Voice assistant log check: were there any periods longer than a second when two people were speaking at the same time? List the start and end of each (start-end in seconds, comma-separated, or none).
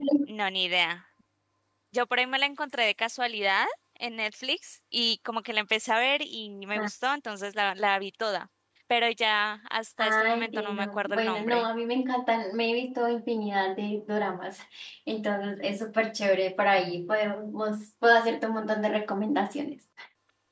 10.0-11.7